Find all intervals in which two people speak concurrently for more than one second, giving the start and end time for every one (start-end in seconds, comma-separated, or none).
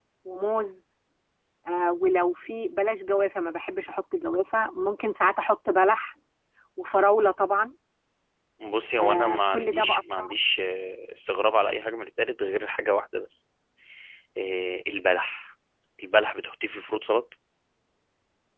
9.0-10.3